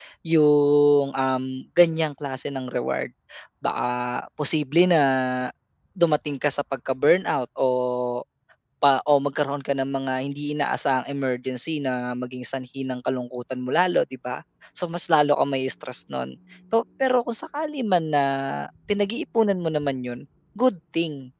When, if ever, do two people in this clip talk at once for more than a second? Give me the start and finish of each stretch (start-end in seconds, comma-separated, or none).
none